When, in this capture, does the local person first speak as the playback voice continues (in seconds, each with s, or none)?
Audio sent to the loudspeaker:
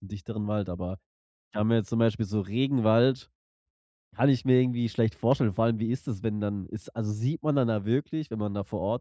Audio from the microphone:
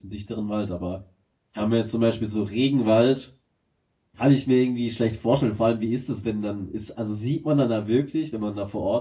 none